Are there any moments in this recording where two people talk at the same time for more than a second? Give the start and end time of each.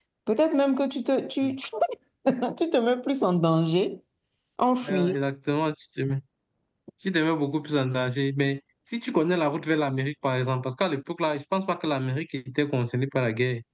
none

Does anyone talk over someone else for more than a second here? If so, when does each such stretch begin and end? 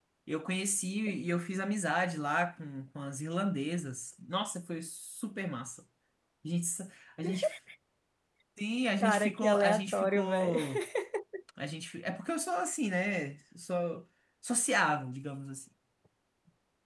9.0-10.6

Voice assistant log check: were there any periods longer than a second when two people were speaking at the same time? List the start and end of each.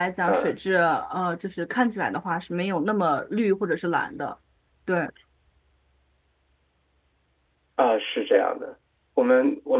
none

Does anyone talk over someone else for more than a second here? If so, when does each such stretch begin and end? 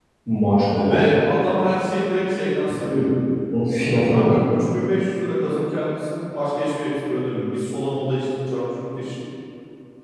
none

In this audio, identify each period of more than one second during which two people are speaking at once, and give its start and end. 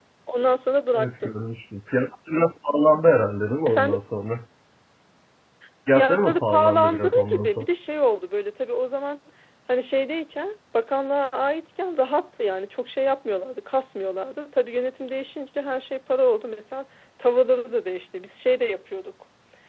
6.0-7.7

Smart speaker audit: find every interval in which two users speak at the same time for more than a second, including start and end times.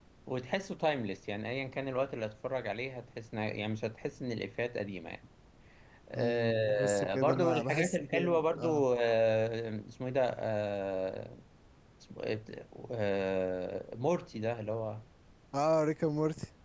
6.2-8.8

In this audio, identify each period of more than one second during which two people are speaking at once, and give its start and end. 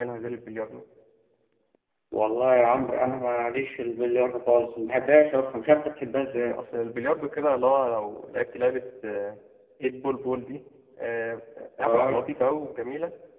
none

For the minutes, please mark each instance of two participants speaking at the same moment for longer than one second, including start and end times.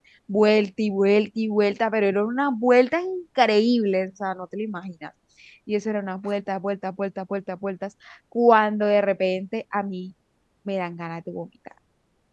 none

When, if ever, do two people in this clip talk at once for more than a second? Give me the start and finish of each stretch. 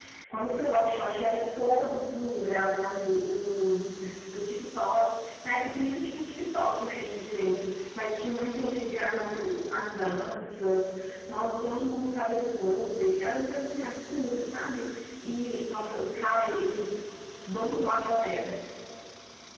none

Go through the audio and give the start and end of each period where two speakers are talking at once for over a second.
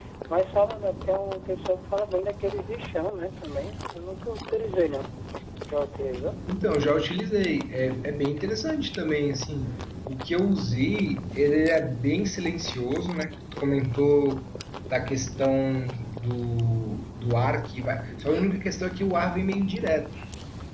none

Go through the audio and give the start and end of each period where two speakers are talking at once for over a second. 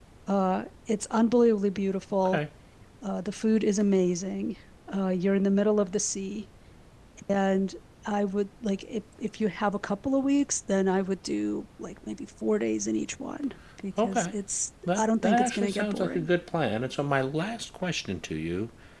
14.9-16.3

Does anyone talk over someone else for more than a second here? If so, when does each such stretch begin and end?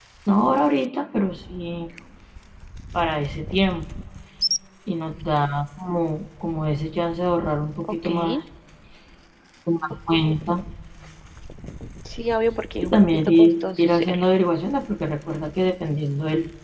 12.8-14.2

